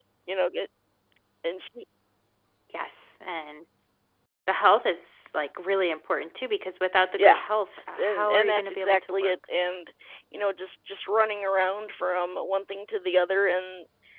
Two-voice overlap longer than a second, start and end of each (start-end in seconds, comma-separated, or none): 8.0-9.3